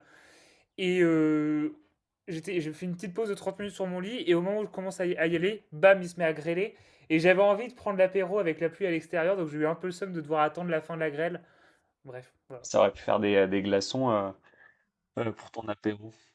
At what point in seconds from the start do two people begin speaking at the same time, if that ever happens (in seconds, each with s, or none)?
none